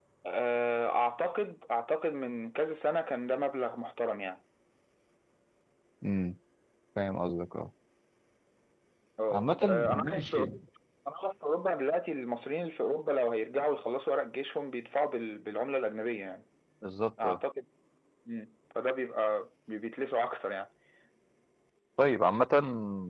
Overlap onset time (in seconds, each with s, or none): 9.3 s